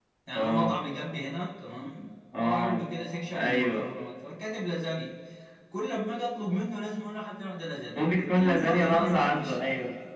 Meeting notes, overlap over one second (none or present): present